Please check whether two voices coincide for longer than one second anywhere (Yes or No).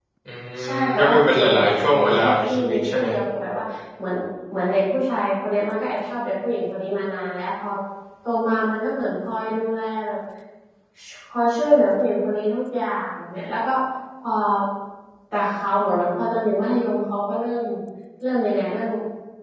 Yes